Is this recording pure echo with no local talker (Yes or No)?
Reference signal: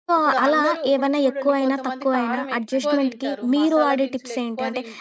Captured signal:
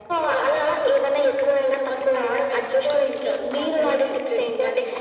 Yes